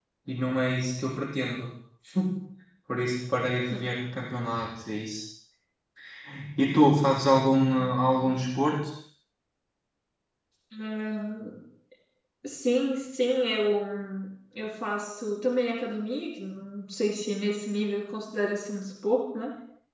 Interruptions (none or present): none